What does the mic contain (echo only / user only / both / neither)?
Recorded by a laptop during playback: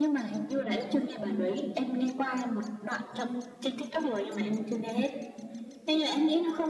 echo only